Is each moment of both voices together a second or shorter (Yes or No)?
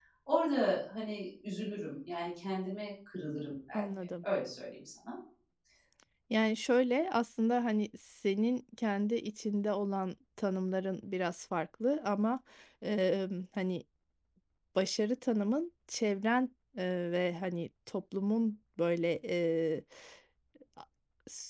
Yes